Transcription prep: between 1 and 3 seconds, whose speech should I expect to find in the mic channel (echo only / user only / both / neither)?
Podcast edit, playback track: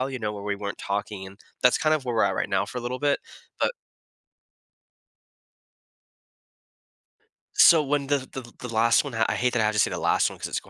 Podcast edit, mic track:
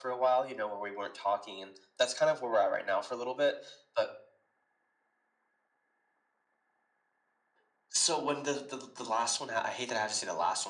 echo only